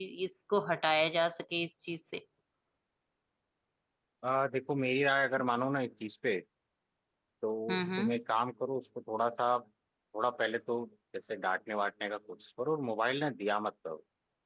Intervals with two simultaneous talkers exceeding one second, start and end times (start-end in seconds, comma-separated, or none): none